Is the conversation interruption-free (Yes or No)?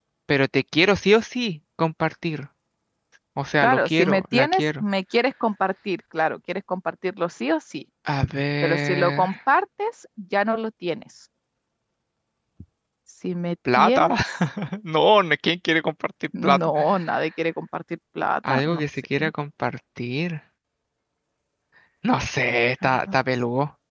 No